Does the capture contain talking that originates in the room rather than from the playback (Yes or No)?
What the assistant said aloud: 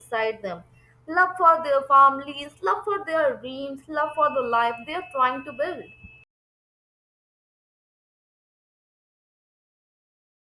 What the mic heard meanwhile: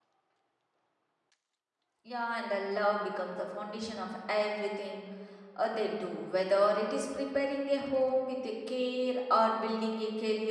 Yes